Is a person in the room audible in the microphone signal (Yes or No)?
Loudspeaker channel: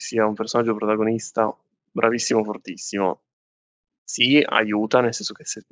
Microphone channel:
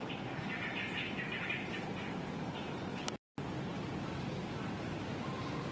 No